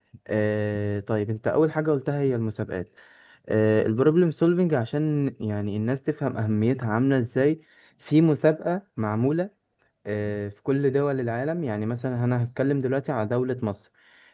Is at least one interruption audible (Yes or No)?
No